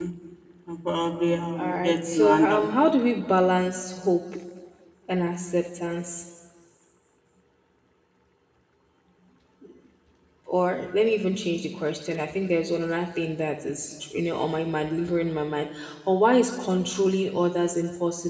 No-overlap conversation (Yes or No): No